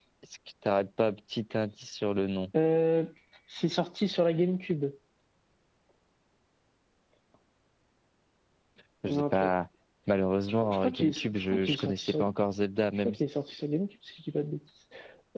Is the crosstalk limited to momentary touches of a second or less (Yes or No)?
No